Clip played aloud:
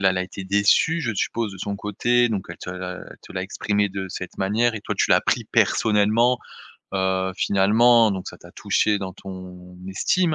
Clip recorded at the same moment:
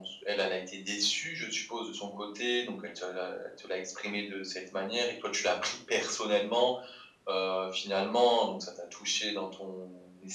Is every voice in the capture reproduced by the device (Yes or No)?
Yes